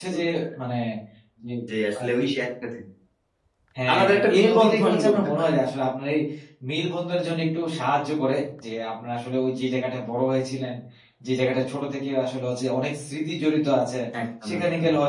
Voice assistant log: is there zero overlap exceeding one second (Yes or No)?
No